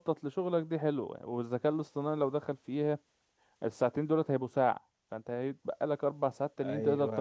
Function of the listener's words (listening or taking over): taking over